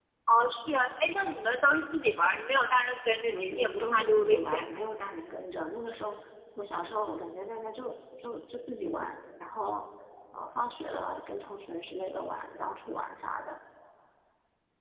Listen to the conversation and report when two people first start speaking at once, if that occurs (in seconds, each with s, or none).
3.1 s